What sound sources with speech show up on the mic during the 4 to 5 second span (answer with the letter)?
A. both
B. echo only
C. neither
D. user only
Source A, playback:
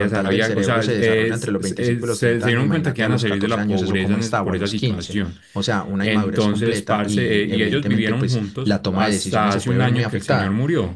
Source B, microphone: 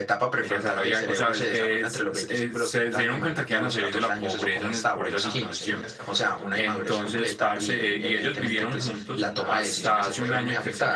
B